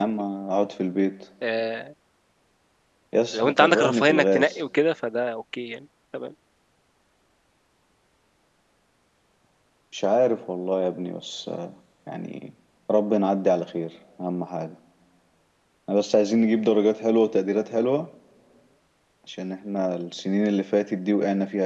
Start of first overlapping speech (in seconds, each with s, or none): 3.3 s